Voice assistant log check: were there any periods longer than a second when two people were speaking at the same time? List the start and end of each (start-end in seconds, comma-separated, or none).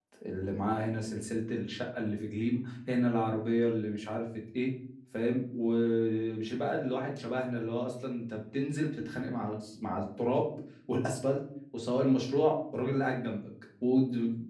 none